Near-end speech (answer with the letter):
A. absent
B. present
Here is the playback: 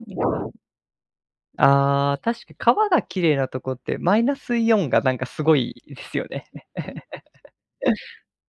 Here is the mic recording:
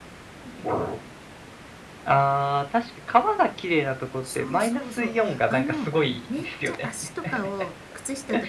B